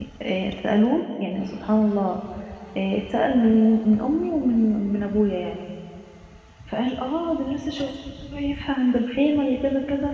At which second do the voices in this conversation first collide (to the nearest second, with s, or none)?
none